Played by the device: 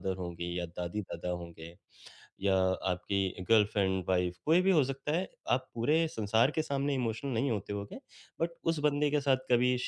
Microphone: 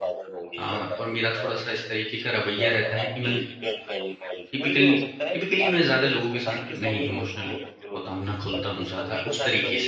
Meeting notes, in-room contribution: present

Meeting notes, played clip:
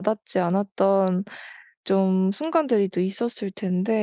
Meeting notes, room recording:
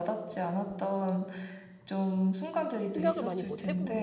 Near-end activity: present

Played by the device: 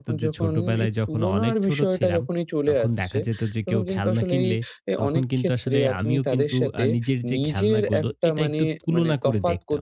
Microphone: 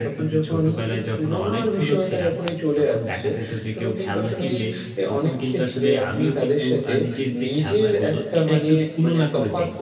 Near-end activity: none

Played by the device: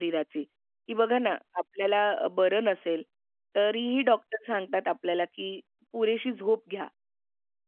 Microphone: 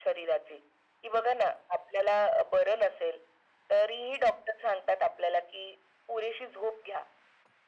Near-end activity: none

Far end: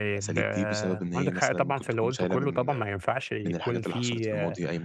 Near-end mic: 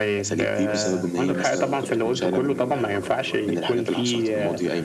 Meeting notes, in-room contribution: present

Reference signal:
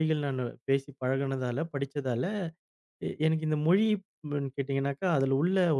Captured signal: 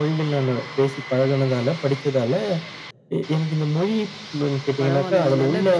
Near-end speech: present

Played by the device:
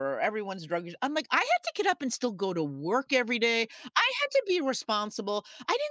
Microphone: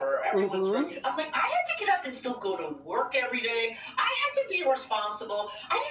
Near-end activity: present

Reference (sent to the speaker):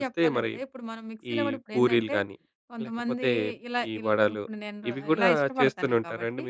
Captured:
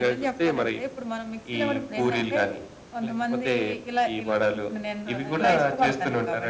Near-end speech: none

